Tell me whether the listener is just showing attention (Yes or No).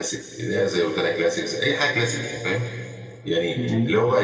Yes